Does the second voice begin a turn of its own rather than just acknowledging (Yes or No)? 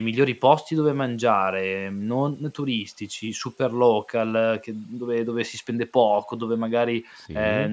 No